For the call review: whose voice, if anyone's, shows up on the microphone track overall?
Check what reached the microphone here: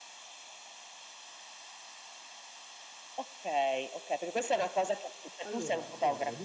both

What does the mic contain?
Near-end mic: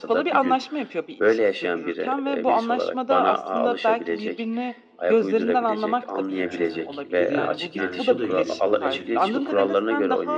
both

